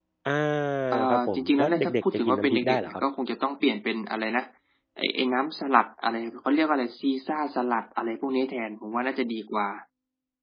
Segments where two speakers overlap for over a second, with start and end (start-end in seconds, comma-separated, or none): 1.1-3.0